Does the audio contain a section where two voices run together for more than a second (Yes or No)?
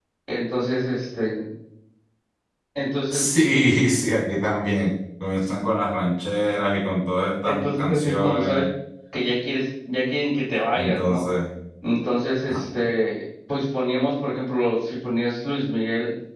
Yes